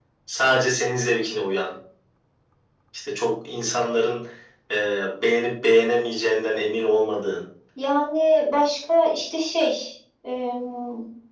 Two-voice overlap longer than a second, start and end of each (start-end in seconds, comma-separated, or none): none